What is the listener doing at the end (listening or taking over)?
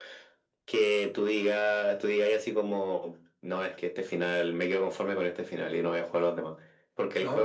listening